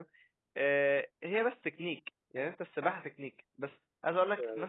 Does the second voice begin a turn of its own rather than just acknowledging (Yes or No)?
No